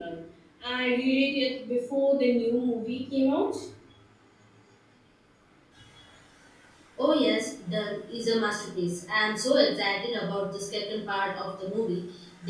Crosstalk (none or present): none